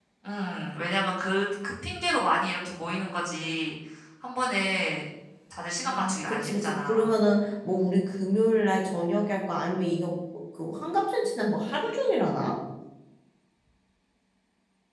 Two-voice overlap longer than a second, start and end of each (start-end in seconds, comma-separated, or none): 5.9-7.1